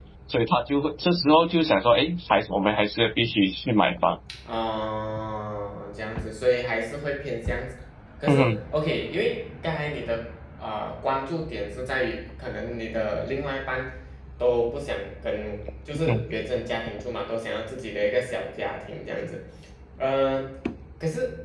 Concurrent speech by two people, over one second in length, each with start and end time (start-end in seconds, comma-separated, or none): none